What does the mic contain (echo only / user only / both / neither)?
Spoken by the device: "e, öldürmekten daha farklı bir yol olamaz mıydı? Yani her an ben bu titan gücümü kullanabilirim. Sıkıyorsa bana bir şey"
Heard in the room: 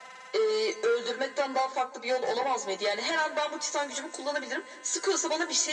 echo only